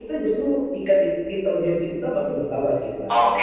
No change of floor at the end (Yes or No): No